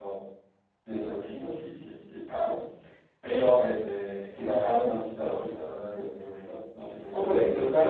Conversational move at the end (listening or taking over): taking over